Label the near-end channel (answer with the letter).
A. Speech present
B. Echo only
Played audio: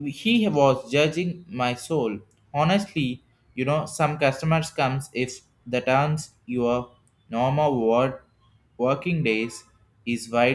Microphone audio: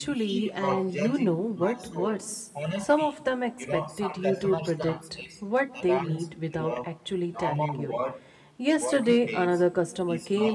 A